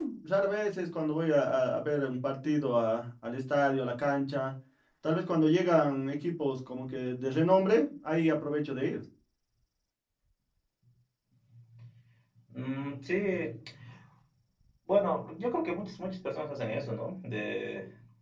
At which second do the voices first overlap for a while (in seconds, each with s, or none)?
none